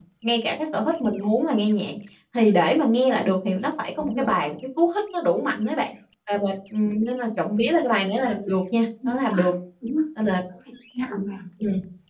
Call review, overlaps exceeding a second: none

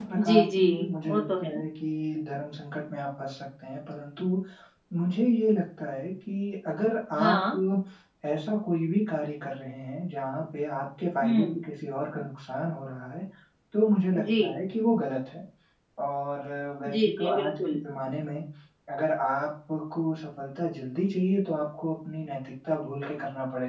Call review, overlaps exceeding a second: present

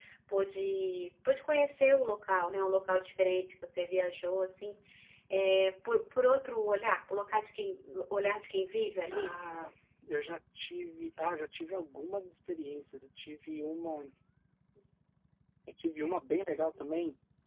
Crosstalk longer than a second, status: none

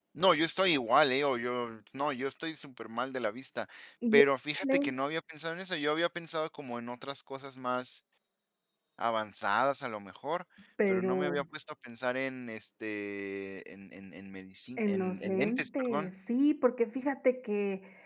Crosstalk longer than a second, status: present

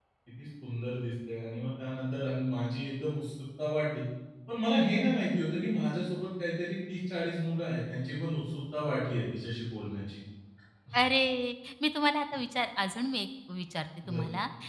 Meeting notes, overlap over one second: none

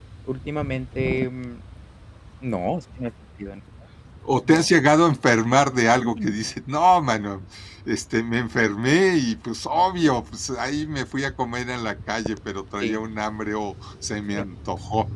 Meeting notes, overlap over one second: none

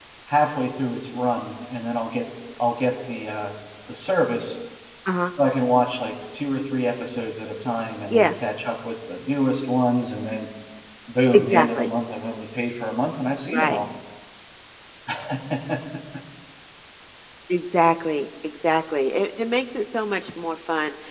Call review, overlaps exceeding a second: none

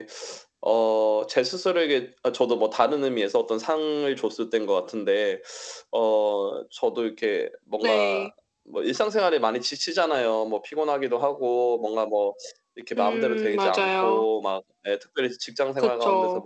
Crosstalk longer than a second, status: present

